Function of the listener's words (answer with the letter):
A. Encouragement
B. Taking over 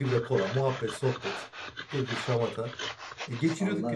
A